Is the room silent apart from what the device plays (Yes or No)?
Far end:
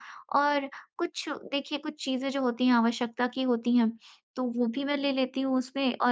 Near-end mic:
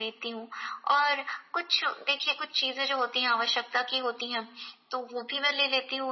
Yes